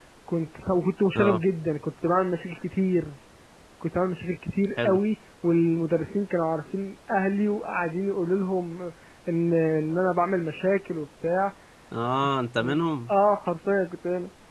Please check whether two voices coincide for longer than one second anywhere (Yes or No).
No